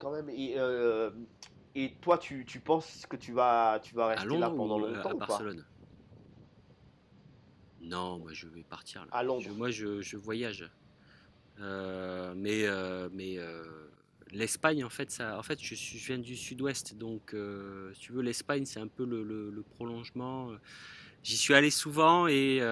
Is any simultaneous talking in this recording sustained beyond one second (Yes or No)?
Yes